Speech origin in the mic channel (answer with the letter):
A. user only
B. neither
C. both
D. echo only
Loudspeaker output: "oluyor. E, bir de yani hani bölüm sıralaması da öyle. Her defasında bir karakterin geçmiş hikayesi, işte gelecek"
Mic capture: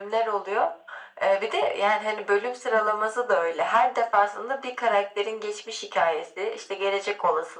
D